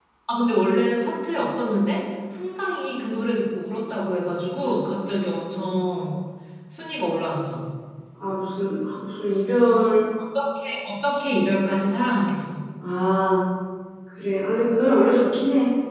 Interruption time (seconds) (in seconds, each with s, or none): none